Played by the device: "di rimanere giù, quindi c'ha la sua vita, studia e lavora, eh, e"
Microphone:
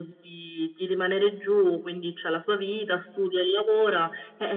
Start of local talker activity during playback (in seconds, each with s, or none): none